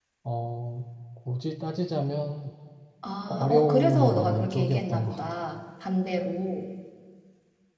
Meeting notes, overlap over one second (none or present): present